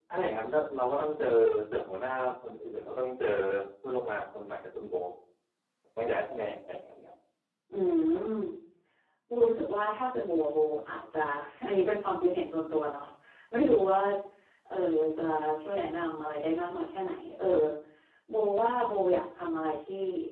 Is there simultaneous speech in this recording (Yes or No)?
No